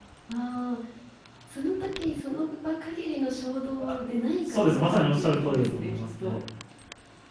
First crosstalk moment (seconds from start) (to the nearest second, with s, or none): 4 s